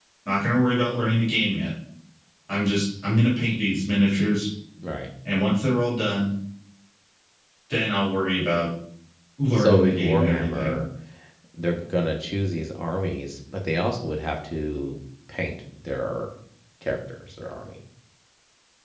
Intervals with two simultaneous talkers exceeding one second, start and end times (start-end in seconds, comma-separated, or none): 9.5-10.8